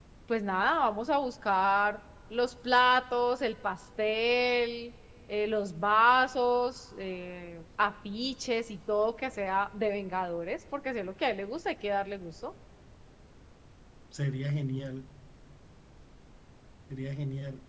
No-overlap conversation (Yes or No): Yes